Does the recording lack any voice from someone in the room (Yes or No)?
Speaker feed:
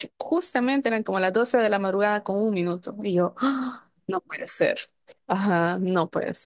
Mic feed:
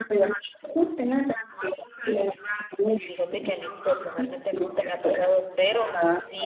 No